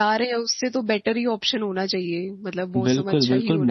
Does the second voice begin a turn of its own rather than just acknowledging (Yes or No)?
Yes